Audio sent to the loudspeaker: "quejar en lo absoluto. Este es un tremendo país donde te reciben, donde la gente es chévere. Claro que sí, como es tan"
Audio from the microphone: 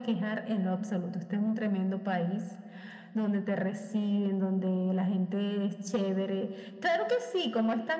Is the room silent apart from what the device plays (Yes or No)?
Yes